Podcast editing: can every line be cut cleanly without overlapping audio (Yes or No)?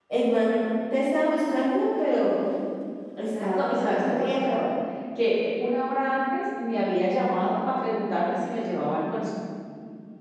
No